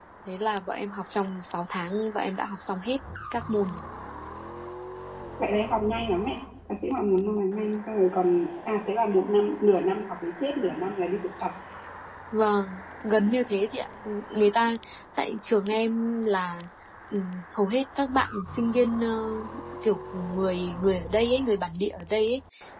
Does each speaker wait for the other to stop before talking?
Yes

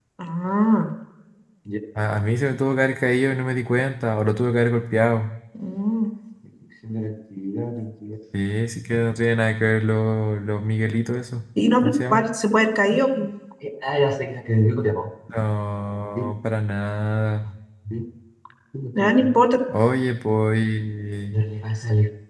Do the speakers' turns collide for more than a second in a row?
No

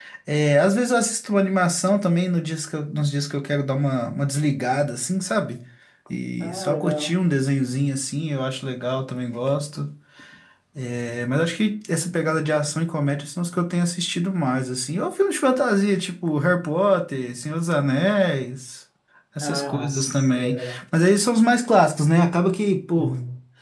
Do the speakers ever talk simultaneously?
Yes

